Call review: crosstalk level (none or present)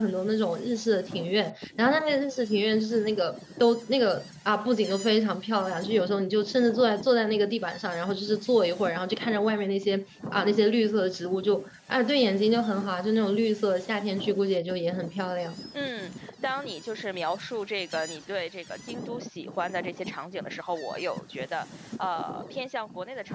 none